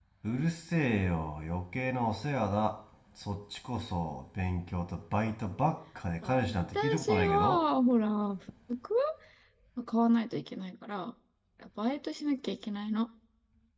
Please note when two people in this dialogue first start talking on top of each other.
6.2 s

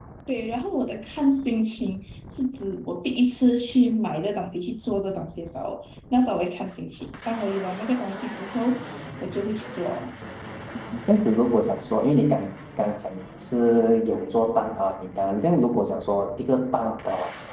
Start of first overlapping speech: none

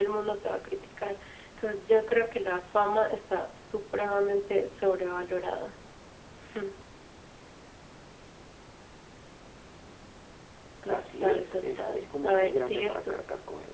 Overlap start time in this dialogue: 10.9 s

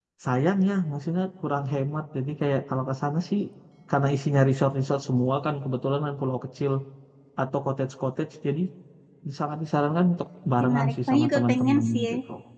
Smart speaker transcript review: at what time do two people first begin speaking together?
10.6 s

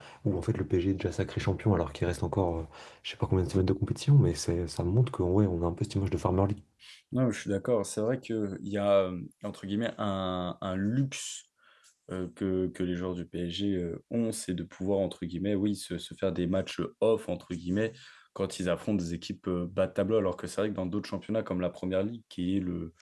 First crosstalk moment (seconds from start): none

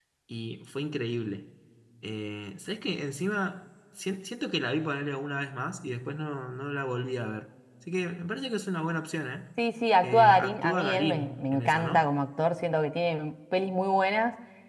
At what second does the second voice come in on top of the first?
10.0 s

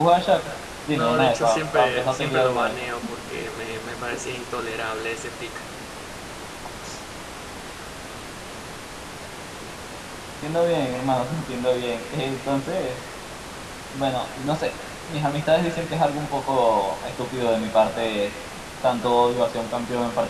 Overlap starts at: 0.9 s

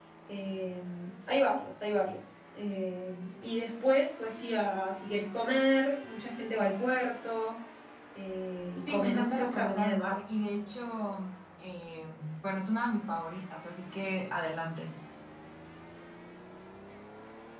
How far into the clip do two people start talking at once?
8.8 s

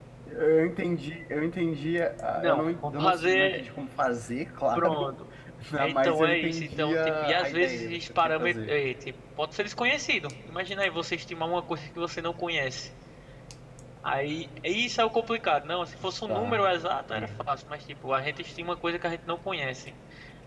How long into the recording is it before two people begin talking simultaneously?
2.4 s

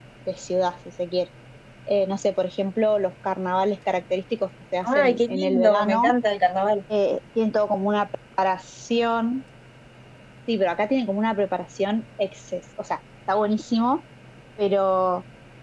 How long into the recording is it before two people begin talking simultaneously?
4.8 s

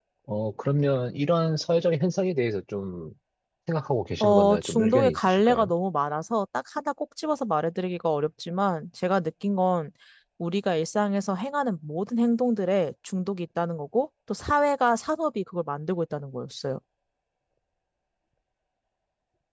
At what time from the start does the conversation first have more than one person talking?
4.2 s

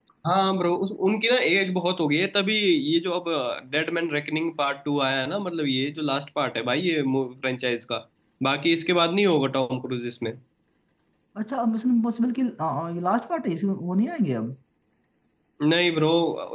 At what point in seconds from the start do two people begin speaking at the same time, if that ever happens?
none

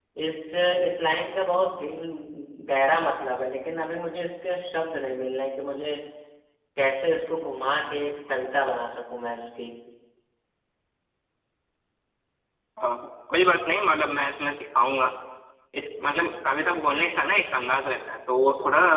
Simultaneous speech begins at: none

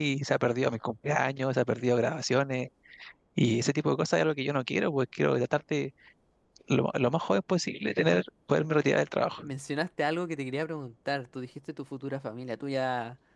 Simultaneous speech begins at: none

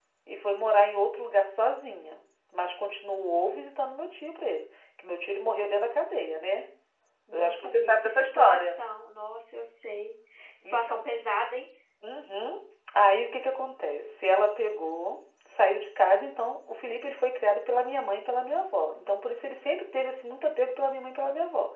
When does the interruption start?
7.3 s

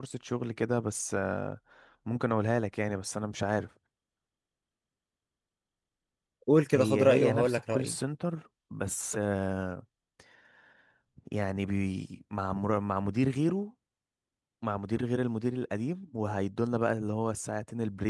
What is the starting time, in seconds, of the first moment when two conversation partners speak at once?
6.7 s

